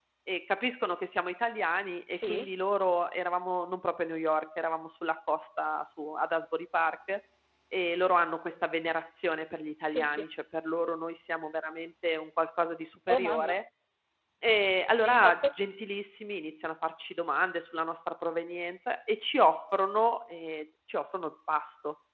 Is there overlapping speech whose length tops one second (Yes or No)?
No